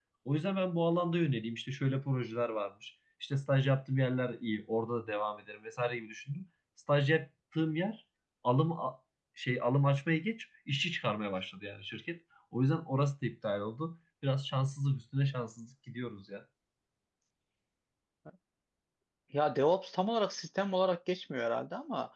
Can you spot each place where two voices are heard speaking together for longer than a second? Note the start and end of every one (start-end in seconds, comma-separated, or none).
none